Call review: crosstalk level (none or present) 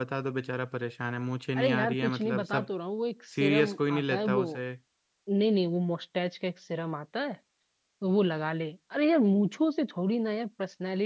present